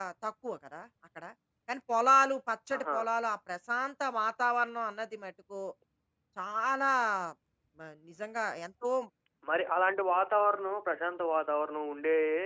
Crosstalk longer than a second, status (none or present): none